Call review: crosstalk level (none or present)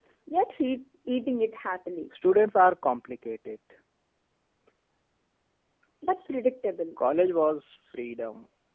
none